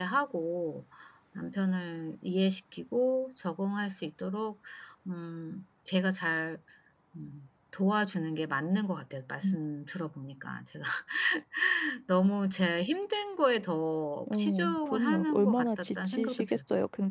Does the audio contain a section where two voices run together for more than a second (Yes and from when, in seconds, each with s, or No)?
Yes, from 14.3 s